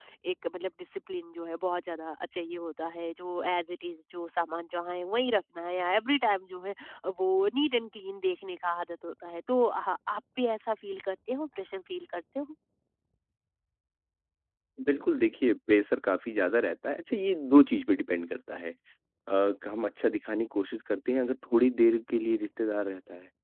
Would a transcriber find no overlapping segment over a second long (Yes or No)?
Yes